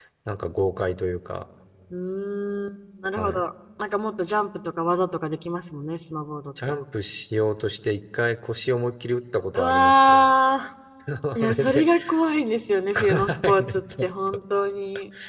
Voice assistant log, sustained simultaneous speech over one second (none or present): present